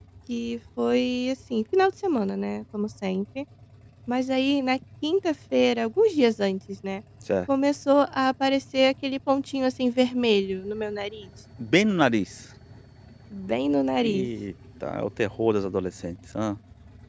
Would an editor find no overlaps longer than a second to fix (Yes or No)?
Yes